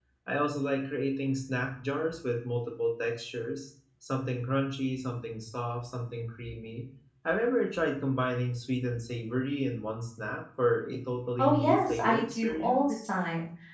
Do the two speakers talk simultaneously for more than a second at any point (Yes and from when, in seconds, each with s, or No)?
Yes, from 11.4 s